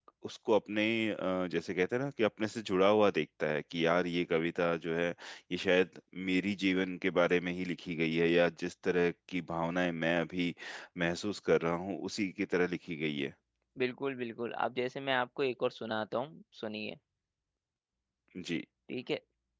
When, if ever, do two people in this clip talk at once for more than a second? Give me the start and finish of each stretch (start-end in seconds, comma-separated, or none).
none